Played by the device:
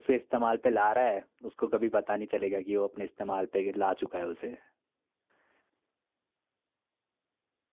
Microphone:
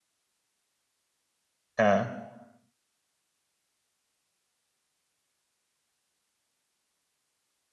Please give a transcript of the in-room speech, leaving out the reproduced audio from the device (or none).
हाँ